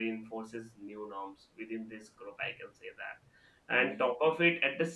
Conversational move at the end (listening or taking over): listening